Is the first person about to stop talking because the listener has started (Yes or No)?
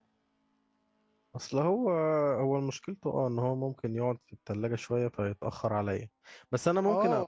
Yes